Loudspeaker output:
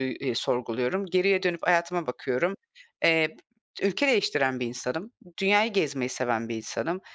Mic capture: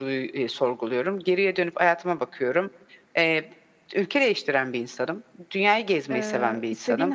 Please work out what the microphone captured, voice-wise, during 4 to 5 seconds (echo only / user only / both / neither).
echo only